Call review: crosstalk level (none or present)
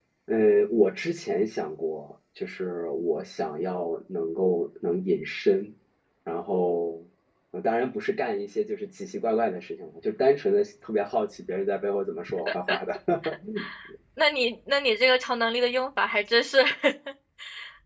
none